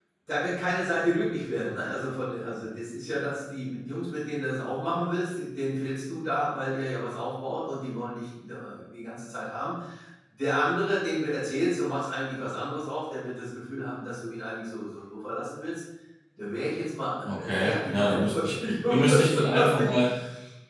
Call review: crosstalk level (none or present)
present